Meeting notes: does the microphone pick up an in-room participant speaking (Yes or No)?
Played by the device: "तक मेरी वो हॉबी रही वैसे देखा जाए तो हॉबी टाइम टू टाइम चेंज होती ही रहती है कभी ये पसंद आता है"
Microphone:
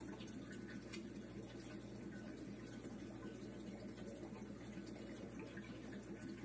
No